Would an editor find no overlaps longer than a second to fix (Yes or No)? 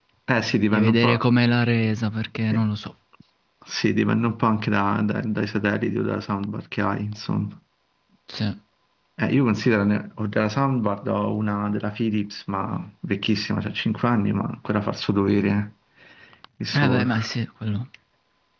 Yes